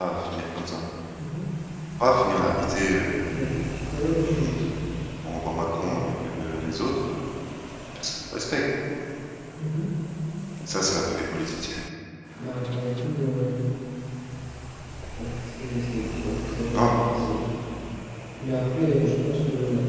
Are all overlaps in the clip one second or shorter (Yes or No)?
Yes